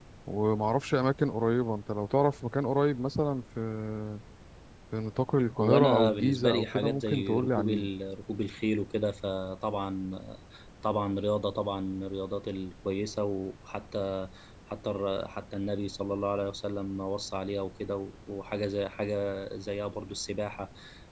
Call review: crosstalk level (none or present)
present